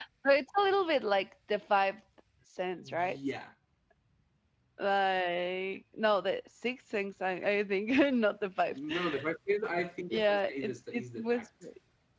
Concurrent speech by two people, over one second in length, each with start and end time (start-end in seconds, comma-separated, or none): 10.1-11.5